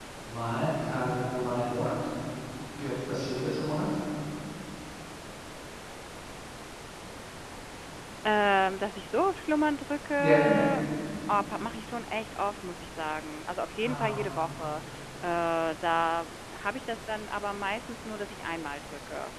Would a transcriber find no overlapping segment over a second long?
Yes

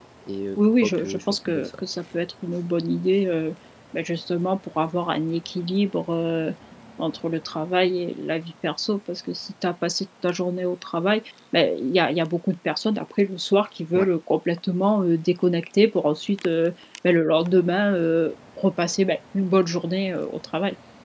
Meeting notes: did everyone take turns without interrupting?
No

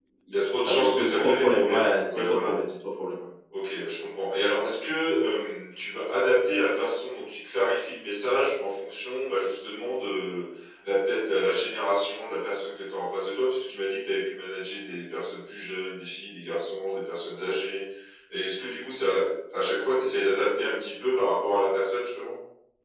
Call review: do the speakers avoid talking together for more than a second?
No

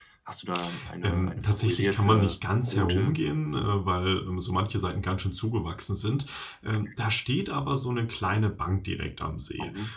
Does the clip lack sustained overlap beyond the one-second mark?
No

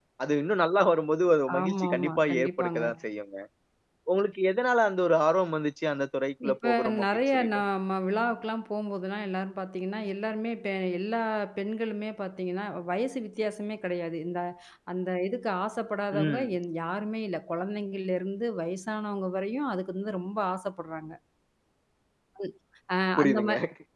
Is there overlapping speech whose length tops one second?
Yes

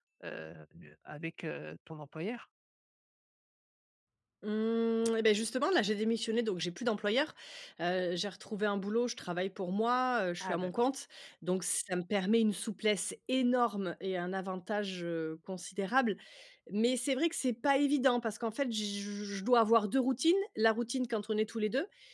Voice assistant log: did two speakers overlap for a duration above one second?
No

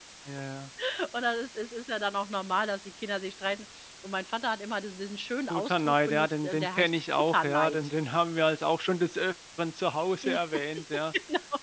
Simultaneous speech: Yes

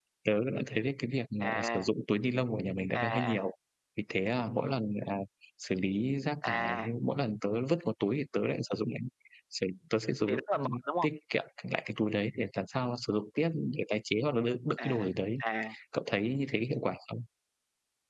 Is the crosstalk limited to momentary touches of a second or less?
Yes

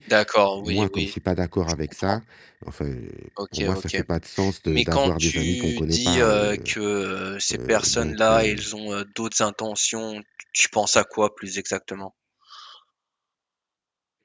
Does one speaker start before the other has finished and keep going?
Yes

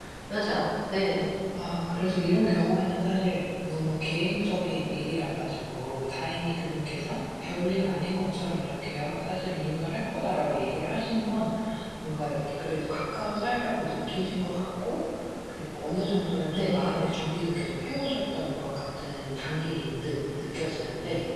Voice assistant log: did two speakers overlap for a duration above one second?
No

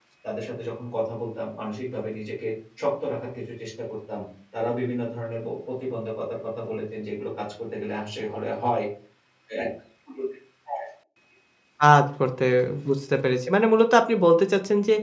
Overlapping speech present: No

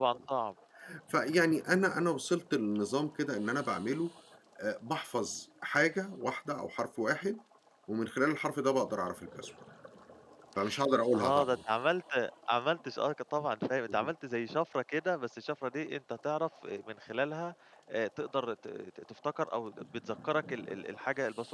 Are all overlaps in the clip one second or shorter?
Yes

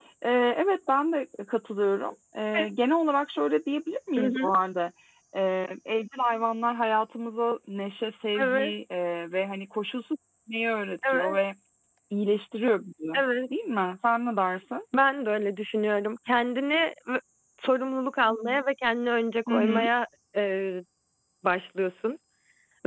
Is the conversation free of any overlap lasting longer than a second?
Yes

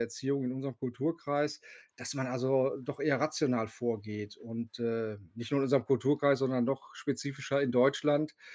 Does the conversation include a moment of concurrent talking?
No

